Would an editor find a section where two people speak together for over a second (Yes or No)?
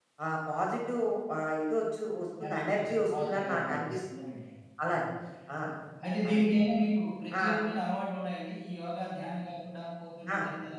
Yes